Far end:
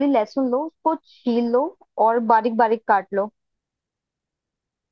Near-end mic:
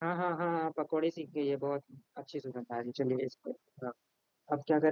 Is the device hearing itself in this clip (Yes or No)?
No